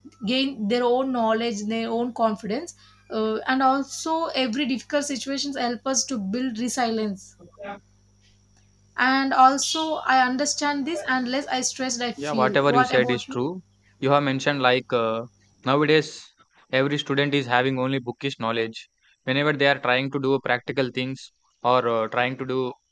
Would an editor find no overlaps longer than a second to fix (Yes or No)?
No